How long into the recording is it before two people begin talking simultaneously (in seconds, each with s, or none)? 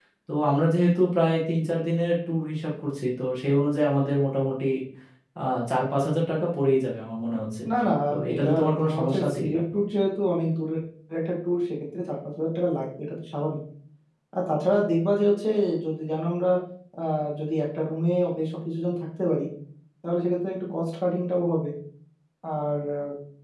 8.3 s